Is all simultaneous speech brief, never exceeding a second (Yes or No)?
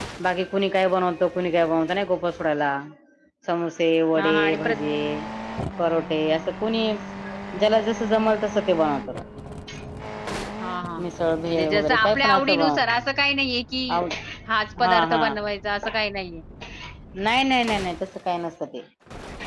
No